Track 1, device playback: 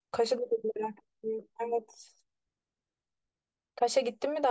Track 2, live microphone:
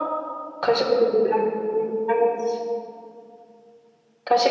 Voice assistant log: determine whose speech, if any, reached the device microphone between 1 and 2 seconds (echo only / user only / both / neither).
echo only